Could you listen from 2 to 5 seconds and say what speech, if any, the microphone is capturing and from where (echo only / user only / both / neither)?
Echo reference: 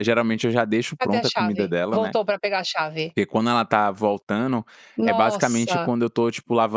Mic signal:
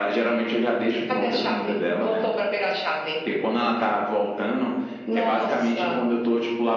echo only